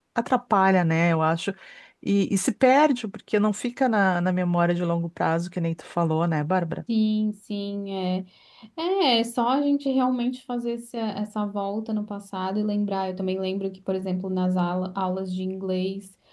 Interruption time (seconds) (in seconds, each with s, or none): none